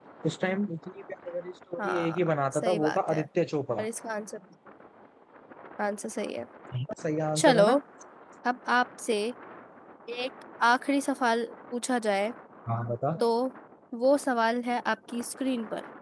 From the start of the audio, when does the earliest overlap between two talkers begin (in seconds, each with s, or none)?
1.8 s